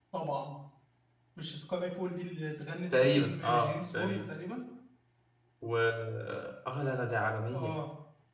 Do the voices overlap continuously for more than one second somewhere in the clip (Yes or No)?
Yes